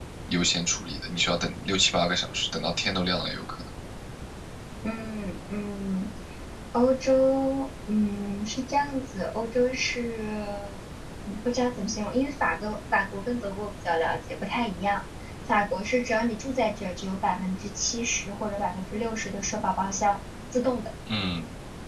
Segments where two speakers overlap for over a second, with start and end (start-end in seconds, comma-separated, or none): none